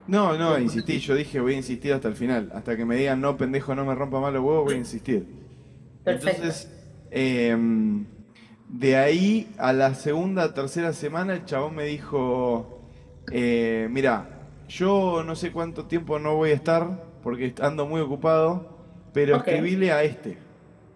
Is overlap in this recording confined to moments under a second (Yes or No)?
Yes